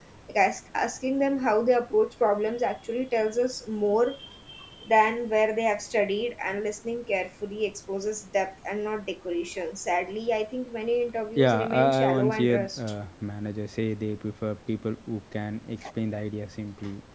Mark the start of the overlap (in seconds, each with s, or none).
11.4 s